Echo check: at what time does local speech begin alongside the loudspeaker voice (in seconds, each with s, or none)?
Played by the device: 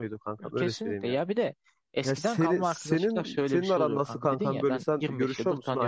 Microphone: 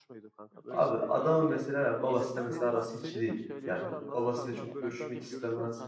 0.7 s